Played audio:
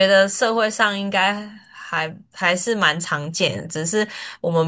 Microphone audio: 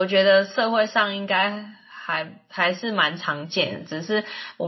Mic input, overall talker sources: echo only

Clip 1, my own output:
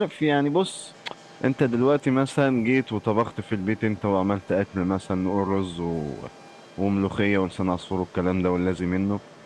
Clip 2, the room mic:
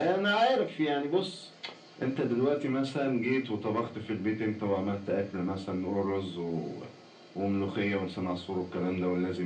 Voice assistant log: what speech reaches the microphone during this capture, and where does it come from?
echo only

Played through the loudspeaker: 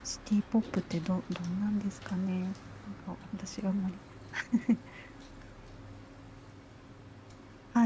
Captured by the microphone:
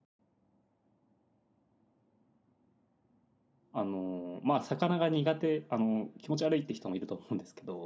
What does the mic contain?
user only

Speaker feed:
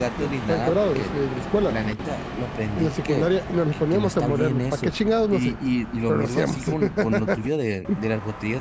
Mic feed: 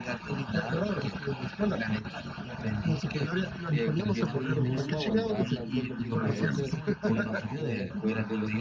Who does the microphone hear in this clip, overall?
both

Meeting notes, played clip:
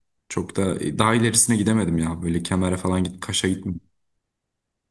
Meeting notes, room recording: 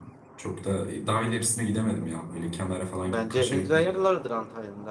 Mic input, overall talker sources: both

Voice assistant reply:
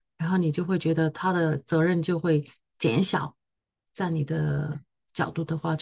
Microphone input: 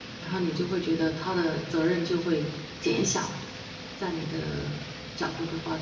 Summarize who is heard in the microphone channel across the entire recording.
echo only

